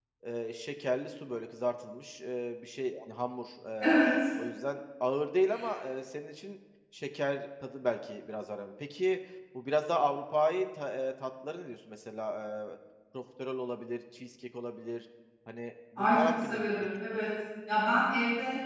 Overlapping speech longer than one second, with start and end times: 16.0-17.2

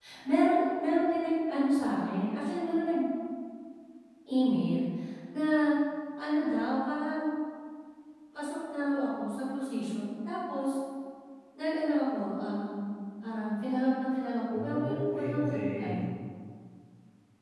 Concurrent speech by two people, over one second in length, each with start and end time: 14.5-16.0

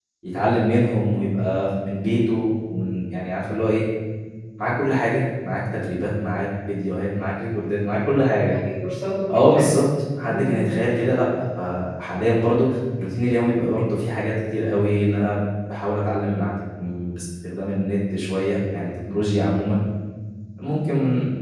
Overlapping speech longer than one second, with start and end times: none

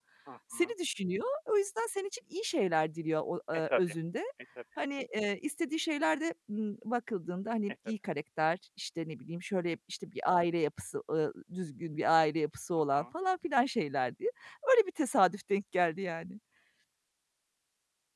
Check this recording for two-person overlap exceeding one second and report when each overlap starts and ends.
none

